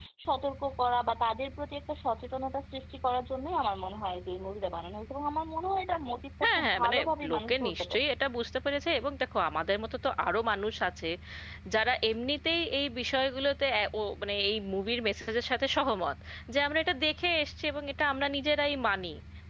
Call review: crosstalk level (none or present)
present